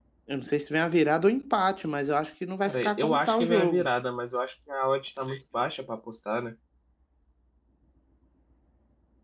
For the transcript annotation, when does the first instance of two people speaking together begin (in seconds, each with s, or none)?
2.7 s